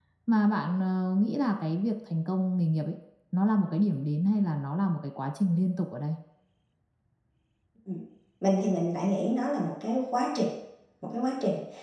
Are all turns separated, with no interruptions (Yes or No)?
Yes